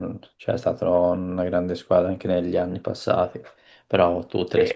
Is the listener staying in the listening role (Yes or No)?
Yes